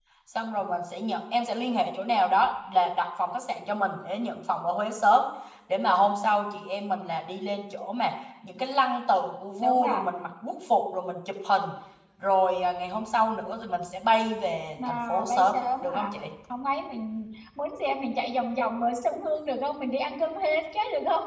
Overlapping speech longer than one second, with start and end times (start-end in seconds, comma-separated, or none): 14.8-16.1